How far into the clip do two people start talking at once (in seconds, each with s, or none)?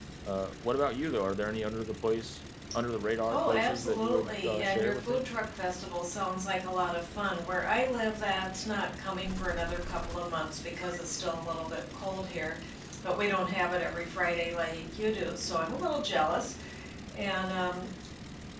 3.2 s